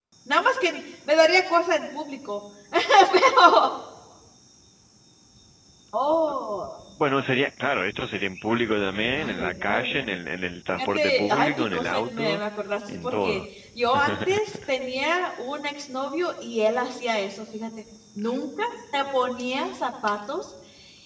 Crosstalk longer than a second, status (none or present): present